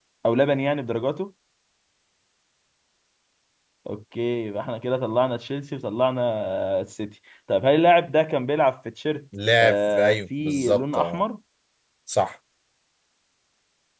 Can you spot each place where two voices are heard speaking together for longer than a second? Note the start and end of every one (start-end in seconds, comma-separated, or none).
9.6-11.2